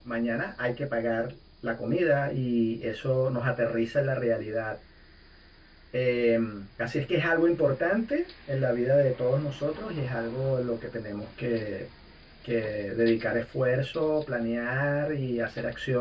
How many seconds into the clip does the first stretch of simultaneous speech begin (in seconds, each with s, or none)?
none